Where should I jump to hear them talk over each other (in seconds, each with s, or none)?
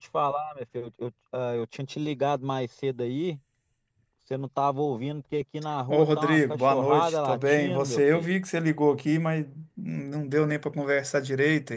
5.9 s